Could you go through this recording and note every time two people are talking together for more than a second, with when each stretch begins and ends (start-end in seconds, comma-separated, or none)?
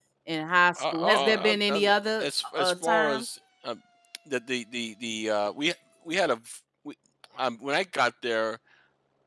0.8-3.2